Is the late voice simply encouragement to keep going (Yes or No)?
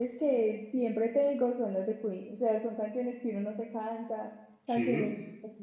Yes